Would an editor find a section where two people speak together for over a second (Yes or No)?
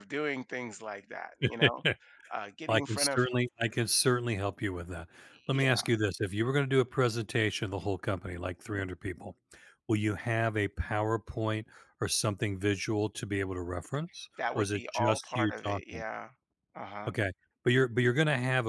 Yes